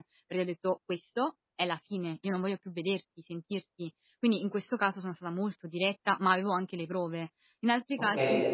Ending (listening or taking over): taking over